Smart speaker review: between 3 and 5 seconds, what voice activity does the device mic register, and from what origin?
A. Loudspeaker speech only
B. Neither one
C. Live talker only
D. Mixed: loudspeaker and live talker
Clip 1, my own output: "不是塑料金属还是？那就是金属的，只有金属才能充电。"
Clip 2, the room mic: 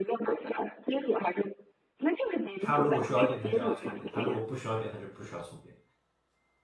D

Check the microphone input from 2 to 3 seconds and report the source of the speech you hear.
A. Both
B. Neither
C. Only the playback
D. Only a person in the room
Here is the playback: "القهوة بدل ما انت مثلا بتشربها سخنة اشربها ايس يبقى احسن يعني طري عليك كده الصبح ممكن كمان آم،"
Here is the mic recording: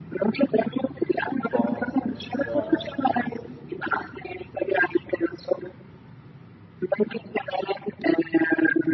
A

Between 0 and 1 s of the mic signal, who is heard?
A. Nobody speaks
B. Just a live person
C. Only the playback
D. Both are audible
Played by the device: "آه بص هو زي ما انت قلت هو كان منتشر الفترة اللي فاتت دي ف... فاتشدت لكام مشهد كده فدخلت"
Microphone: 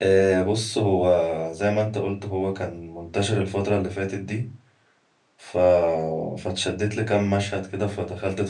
C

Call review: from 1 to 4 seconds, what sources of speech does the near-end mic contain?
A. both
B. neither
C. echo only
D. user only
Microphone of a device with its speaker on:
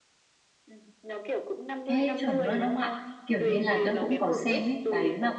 A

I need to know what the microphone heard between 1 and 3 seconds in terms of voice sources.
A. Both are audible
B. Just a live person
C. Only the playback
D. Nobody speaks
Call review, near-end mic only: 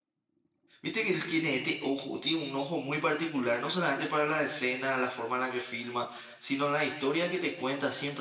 B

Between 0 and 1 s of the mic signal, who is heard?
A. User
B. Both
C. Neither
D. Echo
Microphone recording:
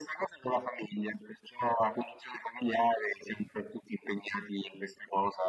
D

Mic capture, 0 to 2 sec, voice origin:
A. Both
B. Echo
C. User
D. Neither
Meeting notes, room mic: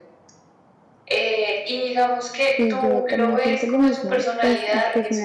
B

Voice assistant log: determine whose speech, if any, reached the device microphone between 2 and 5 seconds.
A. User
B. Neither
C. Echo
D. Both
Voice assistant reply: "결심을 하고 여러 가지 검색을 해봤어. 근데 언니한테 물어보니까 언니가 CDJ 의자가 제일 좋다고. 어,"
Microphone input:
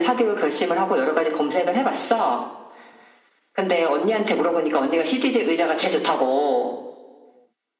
C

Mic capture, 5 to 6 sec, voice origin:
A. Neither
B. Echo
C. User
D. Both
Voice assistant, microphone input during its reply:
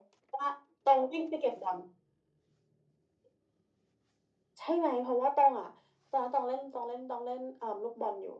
B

